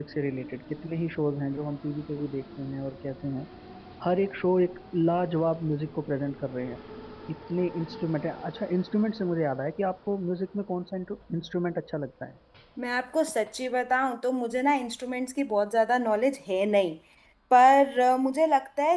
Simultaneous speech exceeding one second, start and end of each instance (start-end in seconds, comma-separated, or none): none